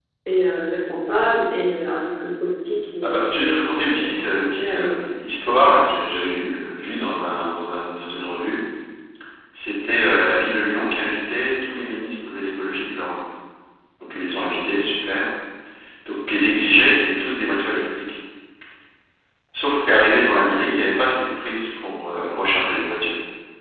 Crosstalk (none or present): present